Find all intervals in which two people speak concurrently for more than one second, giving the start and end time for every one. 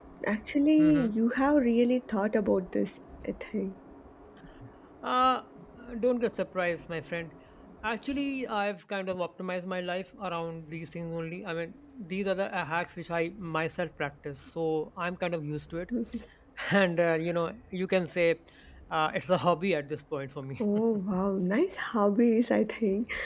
none

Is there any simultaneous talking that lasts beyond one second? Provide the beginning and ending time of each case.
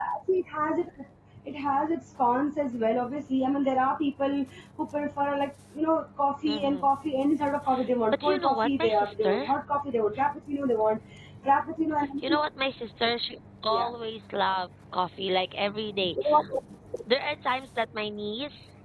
8.1-9.5

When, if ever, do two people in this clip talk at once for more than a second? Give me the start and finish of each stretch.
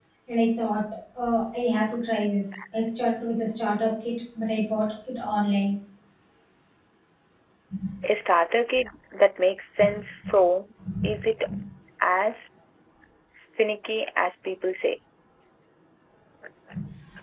none

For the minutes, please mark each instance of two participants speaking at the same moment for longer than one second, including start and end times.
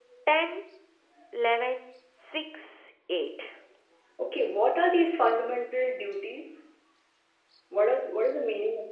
none

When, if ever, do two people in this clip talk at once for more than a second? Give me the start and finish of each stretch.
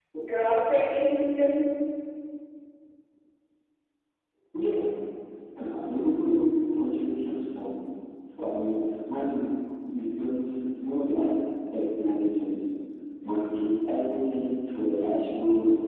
none

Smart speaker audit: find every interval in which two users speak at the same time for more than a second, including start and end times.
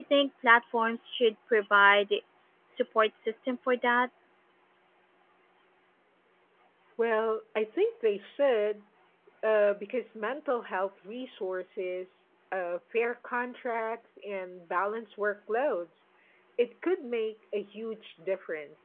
none

